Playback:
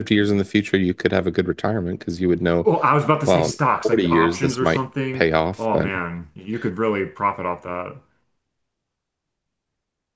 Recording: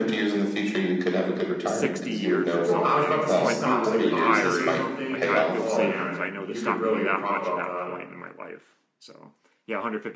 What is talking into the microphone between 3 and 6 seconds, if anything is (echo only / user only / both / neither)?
both